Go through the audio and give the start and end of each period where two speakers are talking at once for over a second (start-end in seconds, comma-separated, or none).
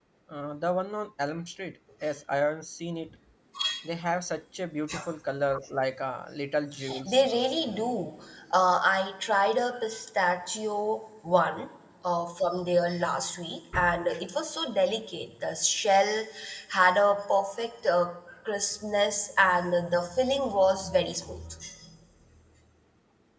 none